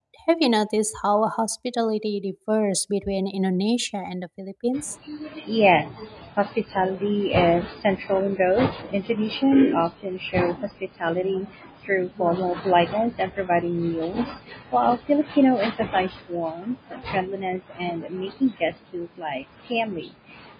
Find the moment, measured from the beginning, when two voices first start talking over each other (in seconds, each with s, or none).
none